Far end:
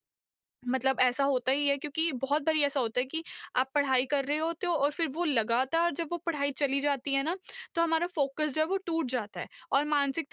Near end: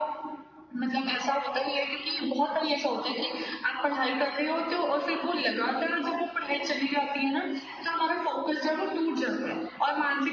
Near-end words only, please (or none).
none